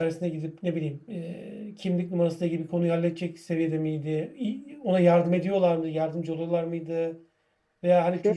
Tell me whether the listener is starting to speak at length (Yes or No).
No